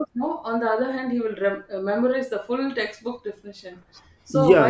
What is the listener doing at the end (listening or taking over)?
taking over